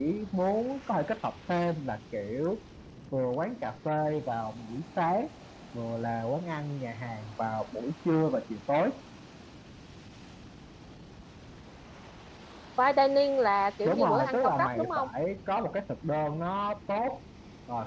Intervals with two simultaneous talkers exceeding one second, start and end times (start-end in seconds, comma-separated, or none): 13.8-15.1